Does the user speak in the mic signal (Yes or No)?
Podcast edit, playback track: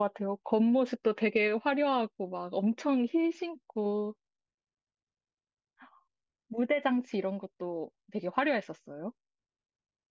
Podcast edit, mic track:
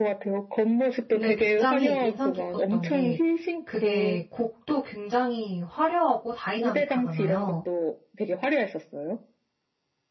Yes